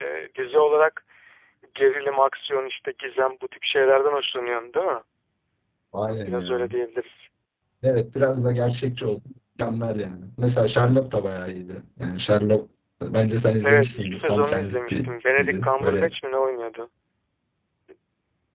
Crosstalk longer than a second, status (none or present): present